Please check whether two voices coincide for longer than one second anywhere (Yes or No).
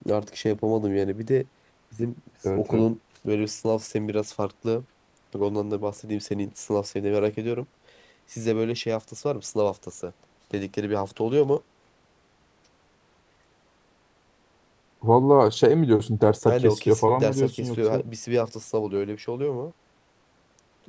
Yes